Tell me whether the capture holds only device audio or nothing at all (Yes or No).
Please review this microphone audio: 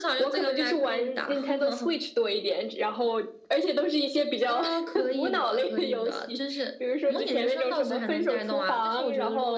Yes